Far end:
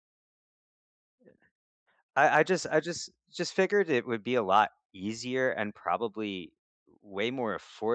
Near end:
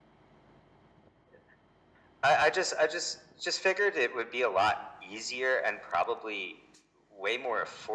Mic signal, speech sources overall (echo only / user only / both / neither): echo only